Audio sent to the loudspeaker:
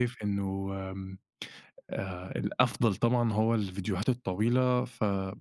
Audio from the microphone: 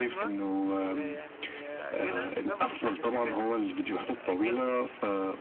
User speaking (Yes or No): Yes